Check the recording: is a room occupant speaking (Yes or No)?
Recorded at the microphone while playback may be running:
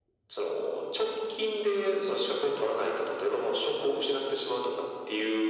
No